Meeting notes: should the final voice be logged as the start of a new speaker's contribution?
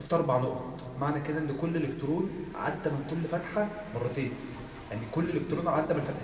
Yes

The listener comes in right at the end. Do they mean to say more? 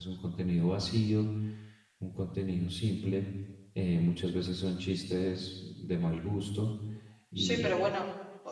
Yes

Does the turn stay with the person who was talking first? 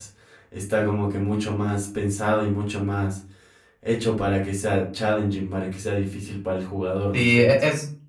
No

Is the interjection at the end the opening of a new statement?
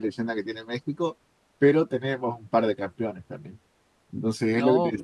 No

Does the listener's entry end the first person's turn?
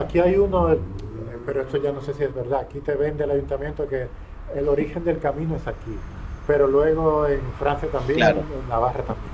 No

